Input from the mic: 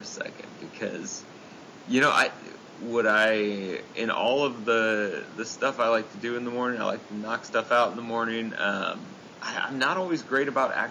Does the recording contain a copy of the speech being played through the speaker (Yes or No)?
No